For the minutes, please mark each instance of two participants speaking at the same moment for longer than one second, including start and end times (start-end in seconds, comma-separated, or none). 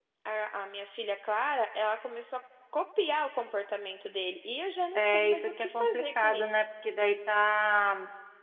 4.9-6.6